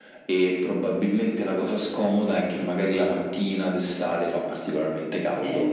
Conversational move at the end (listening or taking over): listening